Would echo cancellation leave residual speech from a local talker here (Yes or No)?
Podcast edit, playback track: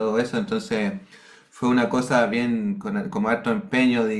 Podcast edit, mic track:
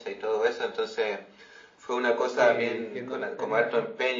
Yes